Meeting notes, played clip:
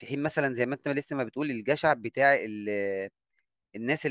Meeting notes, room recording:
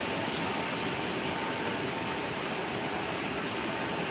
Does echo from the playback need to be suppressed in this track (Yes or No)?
No